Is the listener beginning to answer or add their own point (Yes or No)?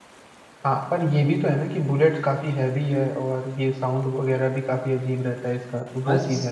Yes